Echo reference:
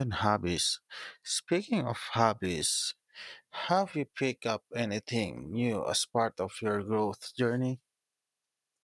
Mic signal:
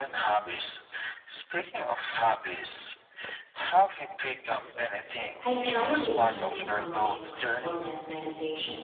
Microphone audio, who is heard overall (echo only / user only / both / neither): both